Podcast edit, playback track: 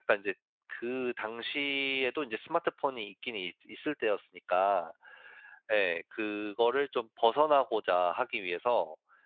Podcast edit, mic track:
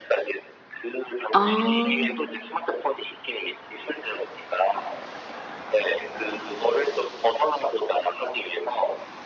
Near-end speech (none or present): present